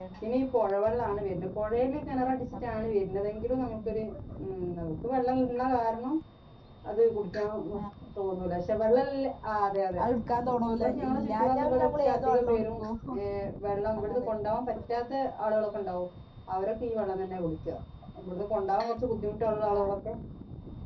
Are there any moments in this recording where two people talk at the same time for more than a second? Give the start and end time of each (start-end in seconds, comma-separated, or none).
10.8-12.7